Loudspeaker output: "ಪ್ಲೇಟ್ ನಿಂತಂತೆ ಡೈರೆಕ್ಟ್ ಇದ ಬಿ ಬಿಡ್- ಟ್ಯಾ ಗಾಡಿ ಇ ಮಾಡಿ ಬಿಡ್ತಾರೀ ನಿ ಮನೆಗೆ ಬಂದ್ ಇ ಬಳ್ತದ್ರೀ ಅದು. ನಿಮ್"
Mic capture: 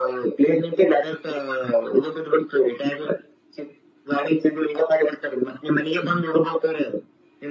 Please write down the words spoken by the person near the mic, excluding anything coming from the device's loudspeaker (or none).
none